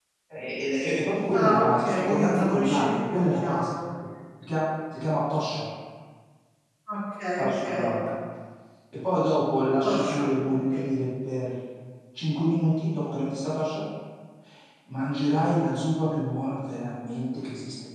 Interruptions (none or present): present